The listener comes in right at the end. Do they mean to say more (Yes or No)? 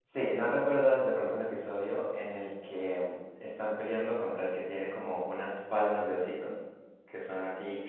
Yes